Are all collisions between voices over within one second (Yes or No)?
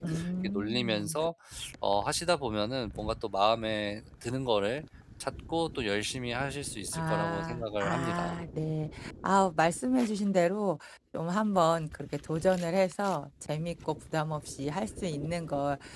No